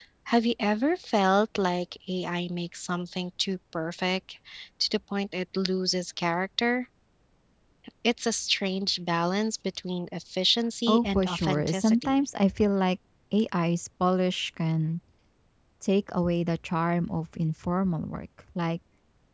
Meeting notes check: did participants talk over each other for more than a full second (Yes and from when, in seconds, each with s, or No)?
Yes, from 10.9 s